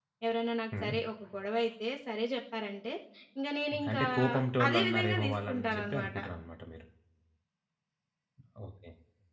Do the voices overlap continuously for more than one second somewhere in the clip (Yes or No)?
Yes